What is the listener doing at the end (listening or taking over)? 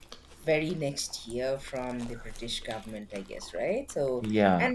listening